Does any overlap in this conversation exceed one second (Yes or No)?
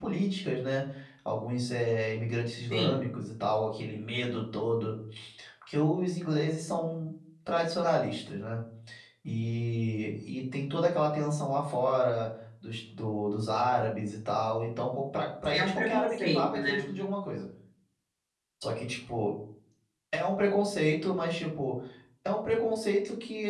Yes